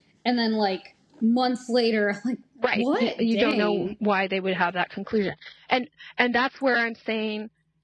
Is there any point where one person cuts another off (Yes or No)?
Yes